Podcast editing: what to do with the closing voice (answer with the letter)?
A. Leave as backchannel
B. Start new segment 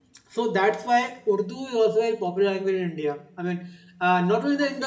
A